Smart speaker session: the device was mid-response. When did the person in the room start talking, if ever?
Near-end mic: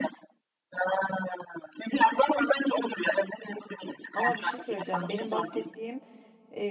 4.1 s

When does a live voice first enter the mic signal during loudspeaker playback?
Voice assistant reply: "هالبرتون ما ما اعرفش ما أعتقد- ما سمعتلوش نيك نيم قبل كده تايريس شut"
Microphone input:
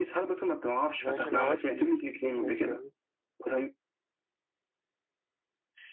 1.0 s

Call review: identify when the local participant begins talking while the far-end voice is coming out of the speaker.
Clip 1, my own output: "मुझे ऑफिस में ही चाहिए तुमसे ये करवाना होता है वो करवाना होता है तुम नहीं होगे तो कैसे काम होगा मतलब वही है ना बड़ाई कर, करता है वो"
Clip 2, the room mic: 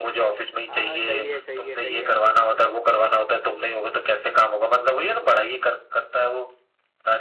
0.7 s

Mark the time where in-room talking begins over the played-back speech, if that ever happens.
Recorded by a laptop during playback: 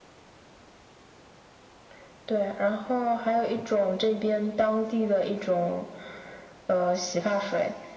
none

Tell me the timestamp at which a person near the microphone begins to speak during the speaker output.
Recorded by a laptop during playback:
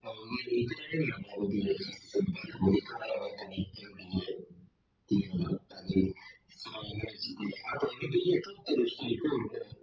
none

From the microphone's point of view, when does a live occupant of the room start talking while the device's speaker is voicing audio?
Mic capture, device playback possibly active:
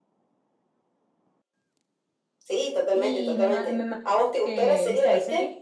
2.9 s

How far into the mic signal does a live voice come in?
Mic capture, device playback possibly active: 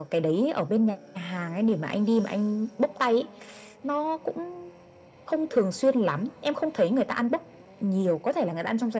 none

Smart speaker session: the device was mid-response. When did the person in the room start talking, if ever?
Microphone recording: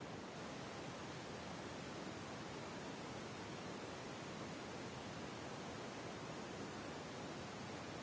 none

